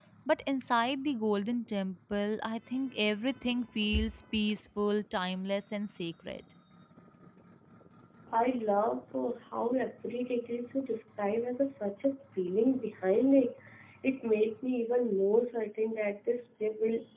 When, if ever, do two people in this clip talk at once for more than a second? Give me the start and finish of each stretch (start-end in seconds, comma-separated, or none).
none